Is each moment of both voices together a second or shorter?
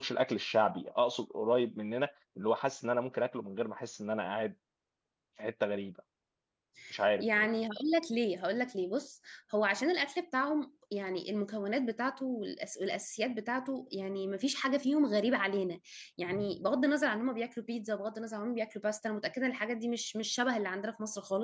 Yes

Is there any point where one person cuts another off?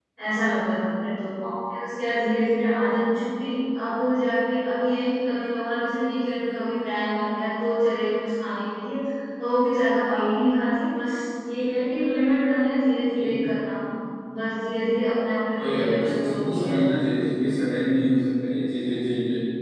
Yes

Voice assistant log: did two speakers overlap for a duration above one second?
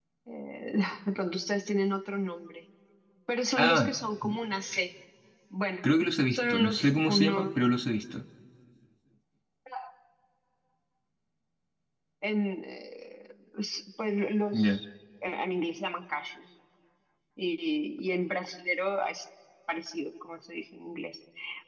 Yes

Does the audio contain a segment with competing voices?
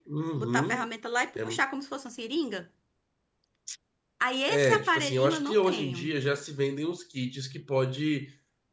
Yes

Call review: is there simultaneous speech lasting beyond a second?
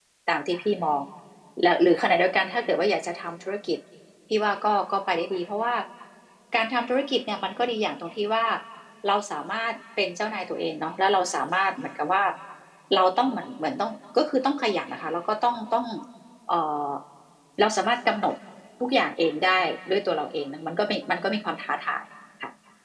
No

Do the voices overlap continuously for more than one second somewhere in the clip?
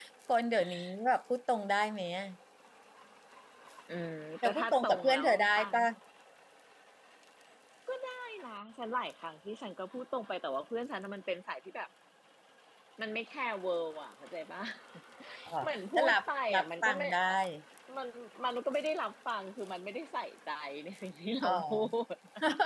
Yes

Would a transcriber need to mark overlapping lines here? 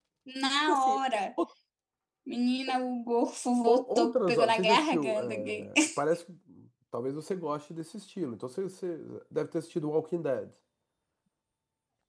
Yes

